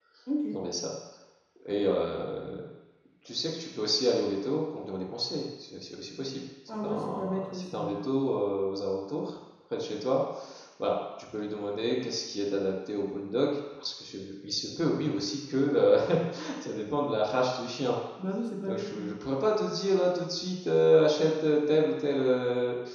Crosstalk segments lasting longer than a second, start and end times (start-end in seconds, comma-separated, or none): 6.7-8.0